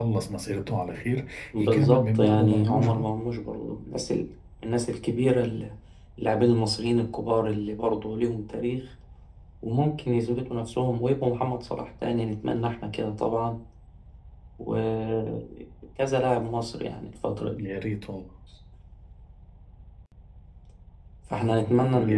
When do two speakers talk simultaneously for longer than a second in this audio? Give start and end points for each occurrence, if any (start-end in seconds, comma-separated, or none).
1.6-3.0